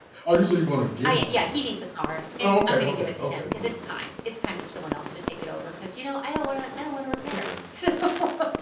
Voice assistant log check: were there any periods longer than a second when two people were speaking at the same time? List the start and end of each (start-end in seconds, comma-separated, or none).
2.4-4.0